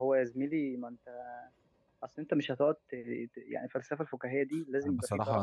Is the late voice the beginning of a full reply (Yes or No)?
Yes